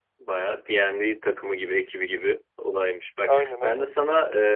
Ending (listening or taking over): listening